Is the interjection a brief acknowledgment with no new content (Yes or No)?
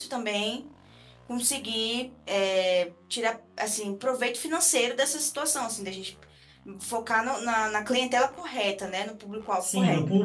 No